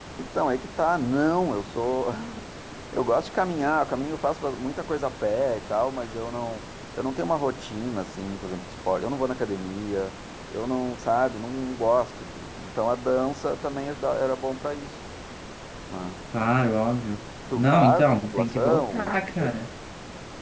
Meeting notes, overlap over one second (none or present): present